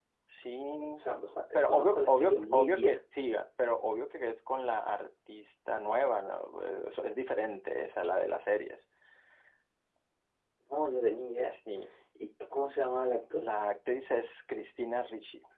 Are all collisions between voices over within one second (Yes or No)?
No